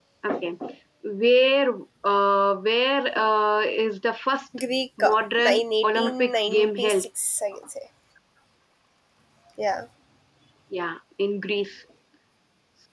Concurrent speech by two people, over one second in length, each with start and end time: 5.0-7.0

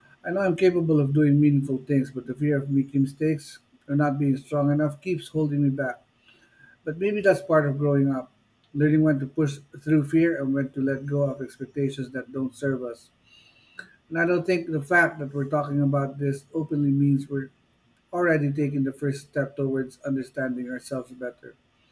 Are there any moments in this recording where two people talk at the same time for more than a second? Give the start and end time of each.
none

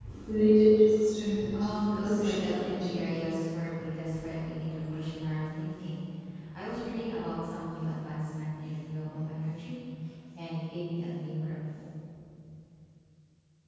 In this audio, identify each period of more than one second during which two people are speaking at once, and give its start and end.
1.6-2.9

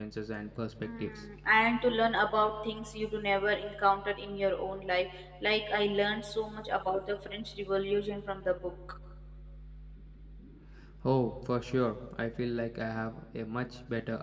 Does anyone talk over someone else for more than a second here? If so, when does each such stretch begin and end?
none

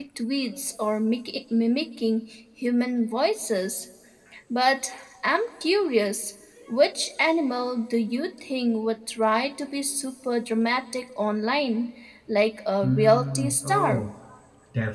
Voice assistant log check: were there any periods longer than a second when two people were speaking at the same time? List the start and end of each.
12.8-14.0

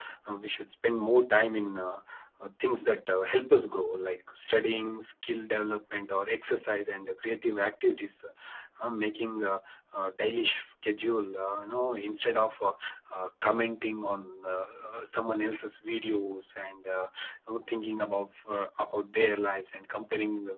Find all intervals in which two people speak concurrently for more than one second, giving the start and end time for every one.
none

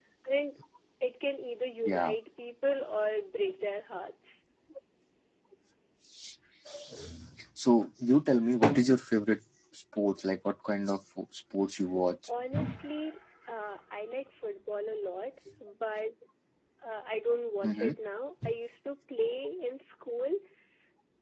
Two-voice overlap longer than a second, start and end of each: none

